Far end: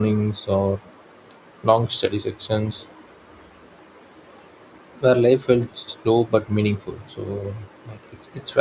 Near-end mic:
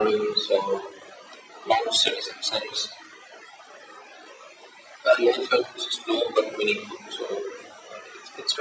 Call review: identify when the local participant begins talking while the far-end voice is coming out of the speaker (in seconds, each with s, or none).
none